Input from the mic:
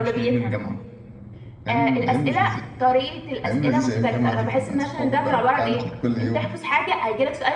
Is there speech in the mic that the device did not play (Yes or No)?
No